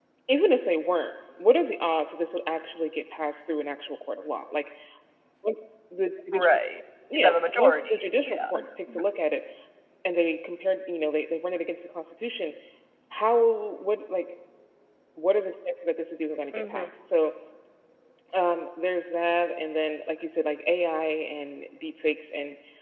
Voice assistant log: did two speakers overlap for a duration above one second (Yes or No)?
Yes